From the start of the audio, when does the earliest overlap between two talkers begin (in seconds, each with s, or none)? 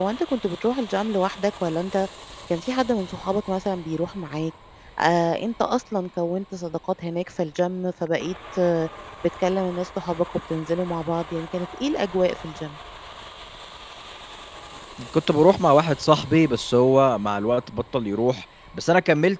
none